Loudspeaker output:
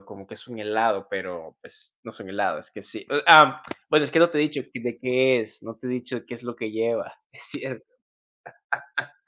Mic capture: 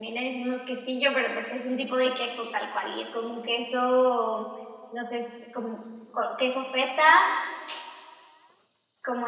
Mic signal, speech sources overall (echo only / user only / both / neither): user only